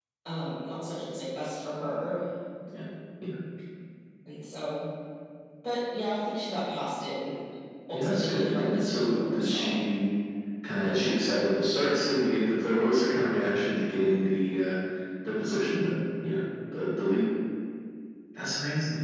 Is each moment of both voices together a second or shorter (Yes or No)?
No